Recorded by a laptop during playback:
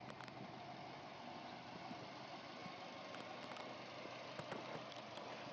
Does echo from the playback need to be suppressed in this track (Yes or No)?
No